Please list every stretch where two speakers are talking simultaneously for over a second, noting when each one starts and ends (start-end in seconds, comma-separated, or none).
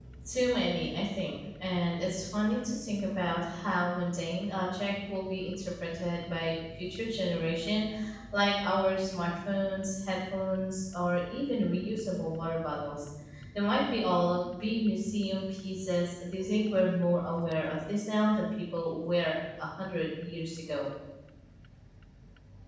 none